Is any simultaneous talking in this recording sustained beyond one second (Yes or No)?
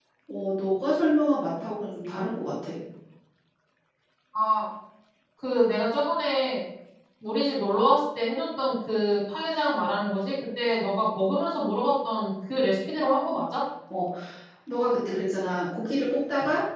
No